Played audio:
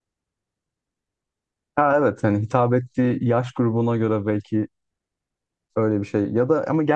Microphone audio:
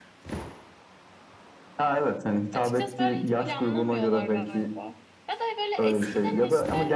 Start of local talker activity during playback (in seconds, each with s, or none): 2.5 s